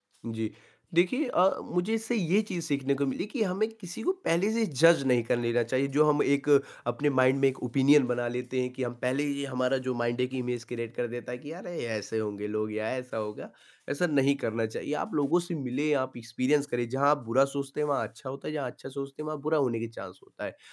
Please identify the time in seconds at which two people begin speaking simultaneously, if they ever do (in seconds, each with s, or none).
none